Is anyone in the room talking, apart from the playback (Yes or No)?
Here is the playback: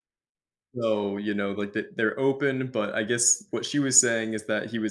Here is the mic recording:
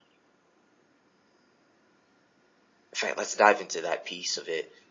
Yes